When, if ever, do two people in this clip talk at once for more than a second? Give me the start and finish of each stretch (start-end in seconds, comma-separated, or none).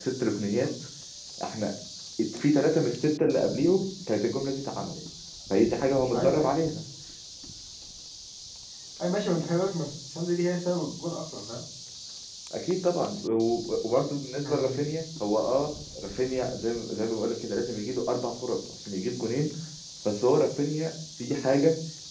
none